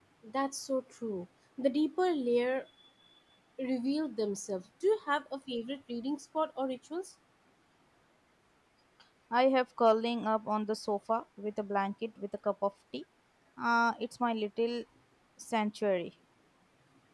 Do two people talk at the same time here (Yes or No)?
No